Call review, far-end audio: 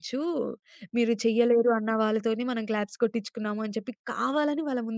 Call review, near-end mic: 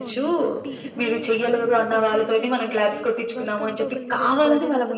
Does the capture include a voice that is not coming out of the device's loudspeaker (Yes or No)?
Yes